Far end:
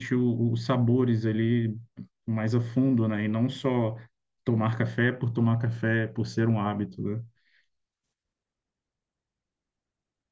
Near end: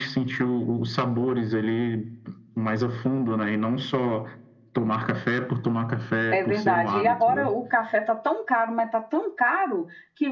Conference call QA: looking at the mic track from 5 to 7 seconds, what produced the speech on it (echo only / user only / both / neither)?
both